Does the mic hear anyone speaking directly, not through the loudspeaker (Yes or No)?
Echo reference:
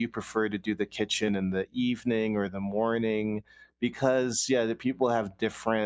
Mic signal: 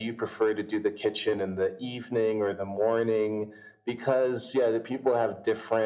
No